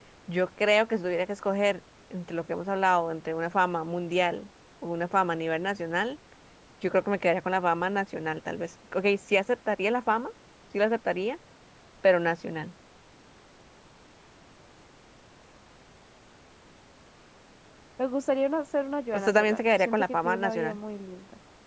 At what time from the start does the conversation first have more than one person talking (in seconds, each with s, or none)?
19.1 s